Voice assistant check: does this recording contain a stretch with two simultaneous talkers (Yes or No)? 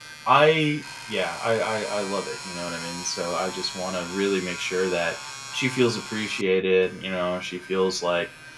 No